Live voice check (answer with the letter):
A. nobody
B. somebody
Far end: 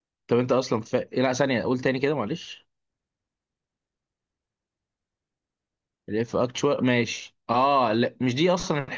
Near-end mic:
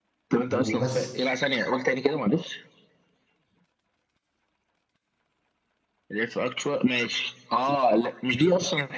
B